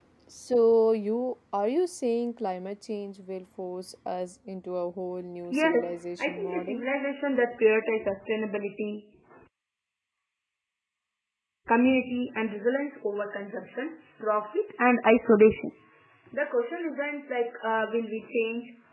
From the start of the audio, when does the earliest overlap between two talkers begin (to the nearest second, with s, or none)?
6 s